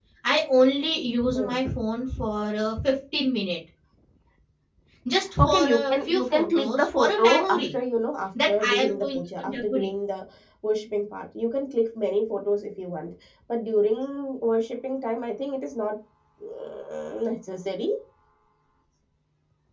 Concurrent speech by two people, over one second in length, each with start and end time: 5.4-7.6, 8.5-9.9

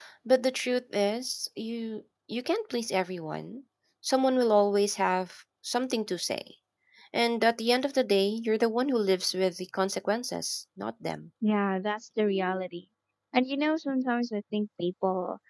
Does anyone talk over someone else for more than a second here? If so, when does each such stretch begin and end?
none

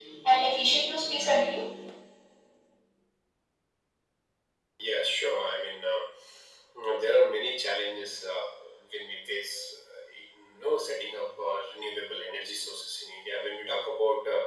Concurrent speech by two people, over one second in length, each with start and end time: none

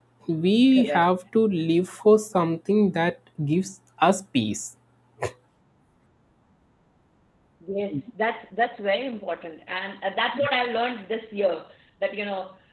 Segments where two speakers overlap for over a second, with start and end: none

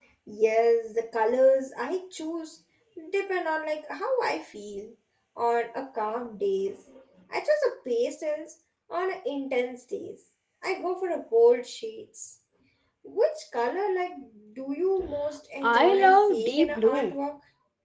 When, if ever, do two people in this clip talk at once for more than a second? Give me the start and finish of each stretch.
15.7-17.1

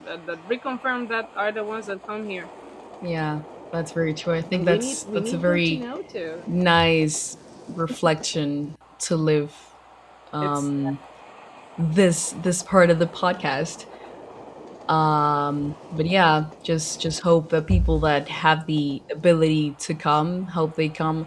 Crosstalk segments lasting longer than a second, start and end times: 4.5-5.8

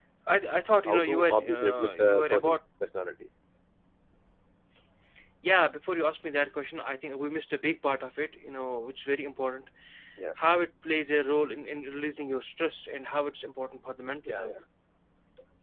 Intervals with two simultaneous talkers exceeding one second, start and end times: 0.8-2.6

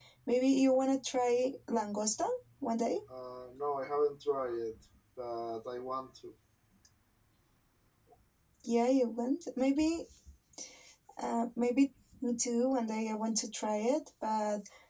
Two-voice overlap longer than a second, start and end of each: none

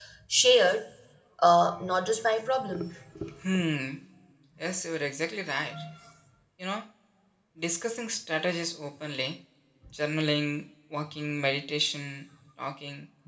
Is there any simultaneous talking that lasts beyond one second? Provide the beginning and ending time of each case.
none

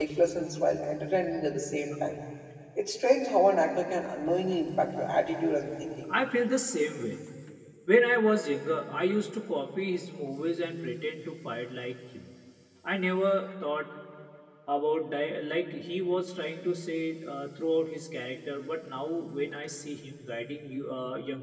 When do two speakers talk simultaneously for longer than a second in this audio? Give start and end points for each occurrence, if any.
none

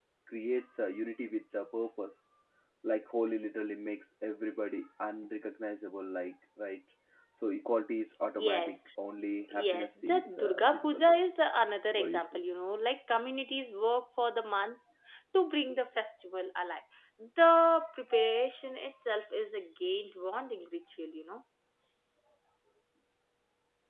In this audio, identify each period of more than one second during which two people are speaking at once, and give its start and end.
9.5-11.0

